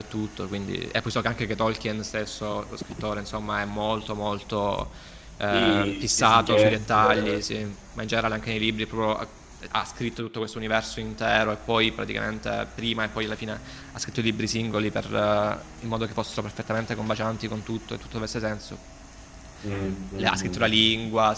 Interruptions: present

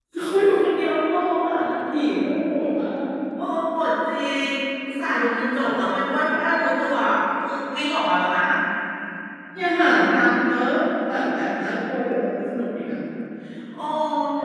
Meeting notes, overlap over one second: none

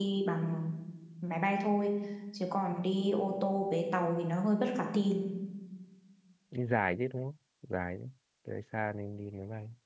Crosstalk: none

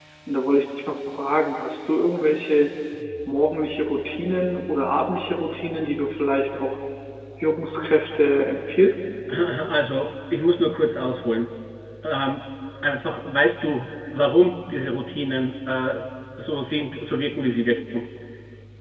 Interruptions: none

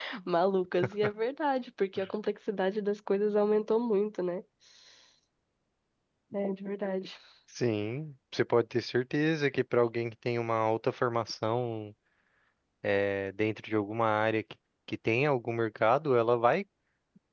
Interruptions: none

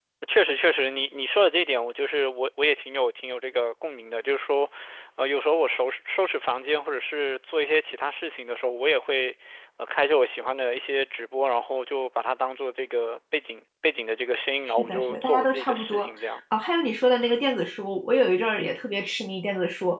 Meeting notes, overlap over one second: present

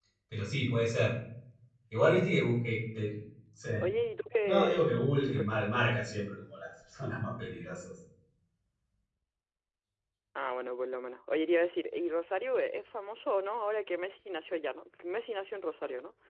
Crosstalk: present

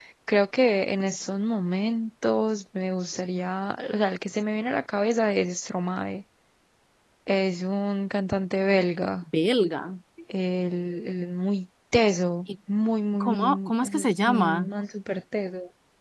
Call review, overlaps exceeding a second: present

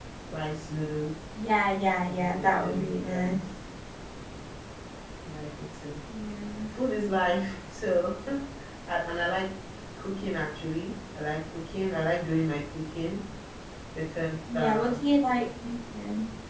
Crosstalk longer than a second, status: present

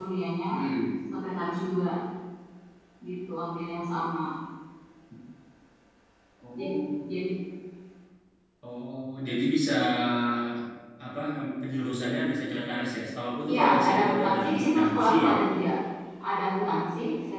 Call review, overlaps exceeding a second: present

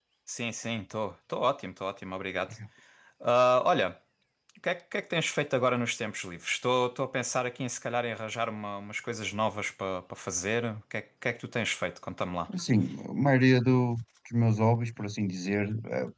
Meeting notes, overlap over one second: none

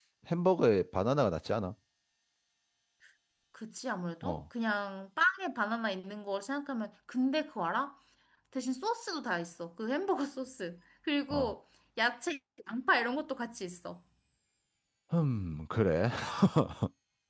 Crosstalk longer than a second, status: none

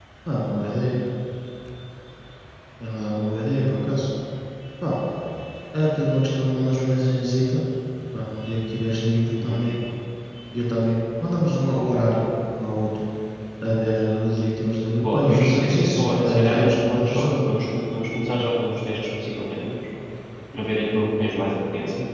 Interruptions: present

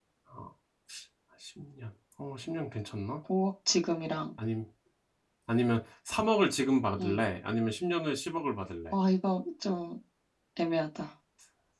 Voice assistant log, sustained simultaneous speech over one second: none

